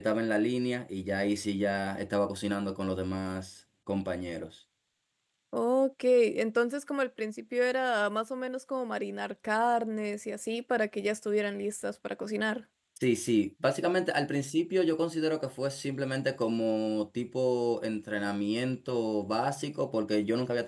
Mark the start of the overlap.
none

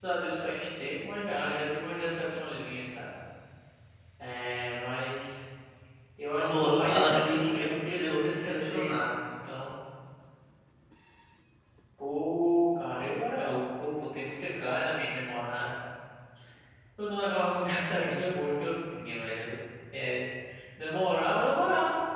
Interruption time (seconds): 6.4 s

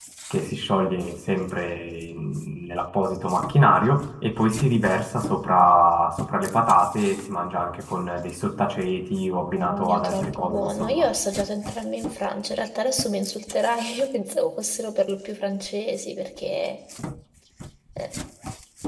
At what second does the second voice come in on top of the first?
9.5 s

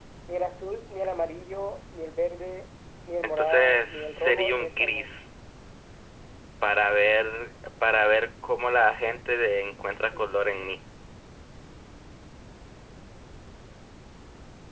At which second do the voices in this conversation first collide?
3.4 s

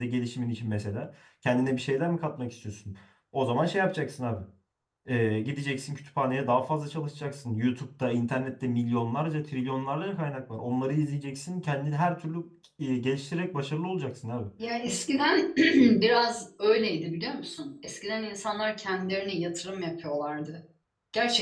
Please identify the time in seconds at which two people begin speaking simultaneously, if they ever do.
none

